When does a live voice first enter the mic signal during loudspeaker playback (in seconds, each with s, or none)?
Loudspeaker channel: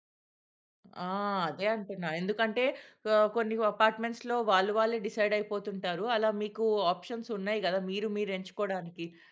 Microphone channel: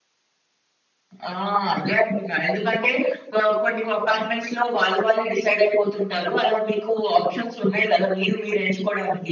none